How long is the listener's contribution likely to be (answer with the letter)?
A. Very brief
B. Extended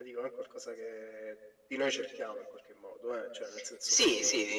B